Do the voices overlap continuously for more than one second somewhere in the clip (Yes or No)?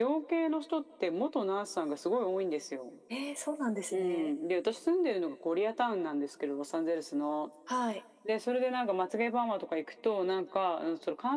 No